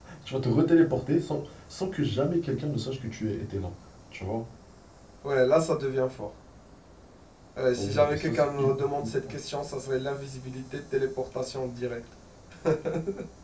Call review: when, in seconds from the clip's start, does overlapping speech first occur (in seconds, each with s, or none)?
7.8 s